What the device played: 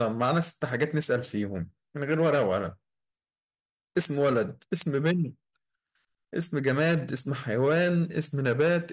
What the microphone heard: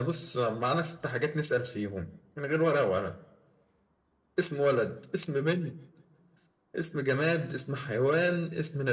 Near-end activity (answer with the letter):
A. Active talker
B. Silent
B